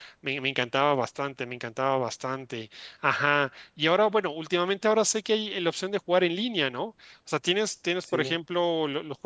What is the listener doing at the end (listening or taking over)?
listening